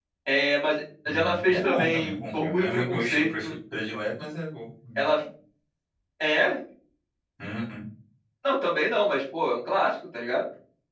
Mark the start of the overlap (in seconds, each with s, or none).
1.1 s